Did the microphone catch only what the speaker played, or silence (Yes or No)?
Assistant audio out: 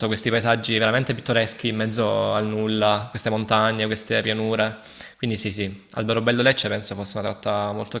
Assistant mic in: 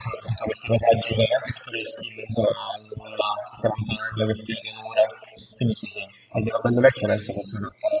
Yes